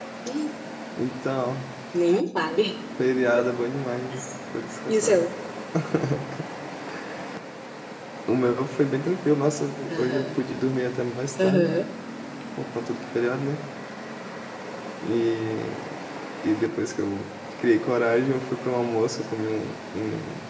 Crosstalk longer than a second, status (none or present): none